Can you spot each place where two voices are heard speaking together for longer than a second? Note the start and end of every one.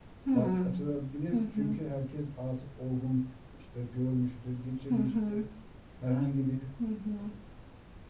none

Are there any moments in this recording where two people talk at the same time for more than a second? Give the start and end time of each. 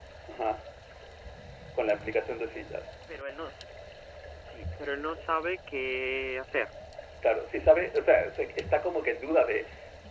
none

